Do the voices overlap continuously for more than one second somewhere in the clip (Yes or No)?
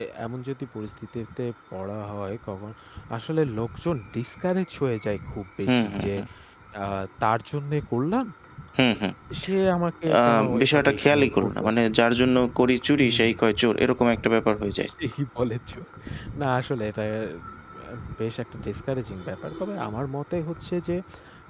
Yes